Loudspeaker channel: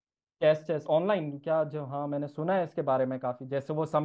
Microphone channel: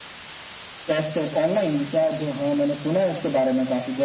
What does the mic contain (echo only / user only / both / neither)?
echo only